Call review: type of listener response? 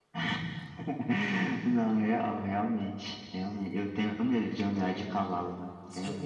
taking over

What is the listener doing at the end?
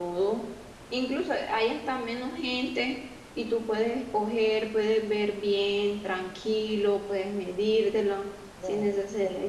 listening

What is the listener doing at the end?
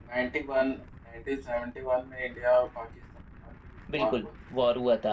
taking over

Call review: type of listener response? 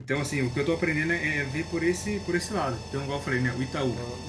listening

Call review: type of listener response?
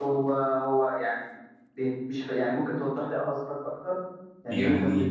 taking over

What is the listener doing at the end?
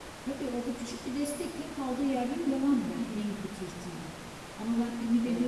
listening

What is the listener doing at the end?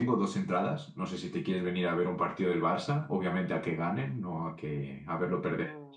taking over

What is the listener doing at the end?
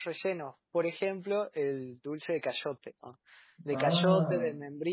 listening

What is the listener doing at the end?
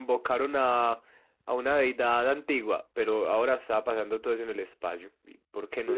taking over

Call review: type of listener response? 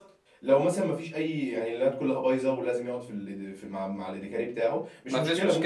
listening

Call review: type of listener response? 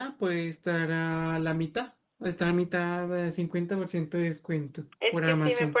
taking over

